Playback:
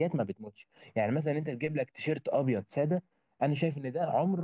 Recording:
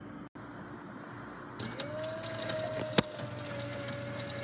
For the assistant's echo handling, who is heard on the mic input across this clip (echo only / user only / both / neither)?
neither